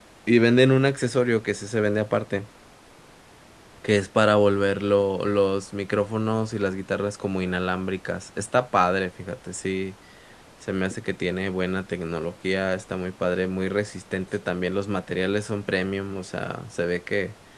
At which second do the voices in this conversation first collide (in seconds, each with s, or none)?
none